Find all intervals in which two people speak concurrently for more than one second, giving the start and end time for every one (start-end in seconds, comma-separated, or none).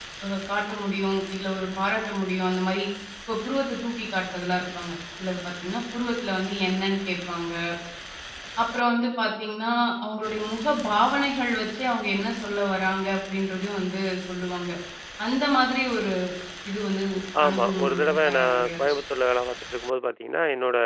17.5-18.8